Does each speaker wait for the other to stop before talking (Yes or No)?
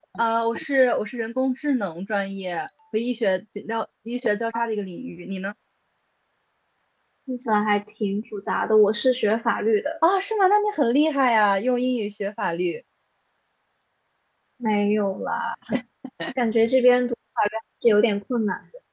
Yes